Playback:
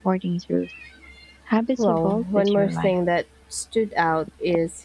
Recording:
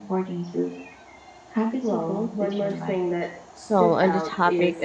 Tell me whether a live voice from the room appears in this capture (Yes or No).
Yes